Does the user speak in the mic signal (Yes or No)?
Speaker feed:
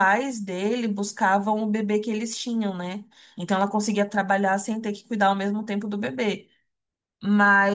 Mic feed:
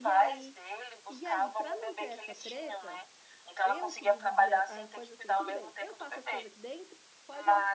Yes